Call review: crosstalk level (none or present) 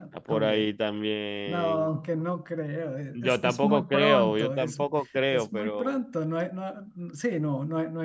present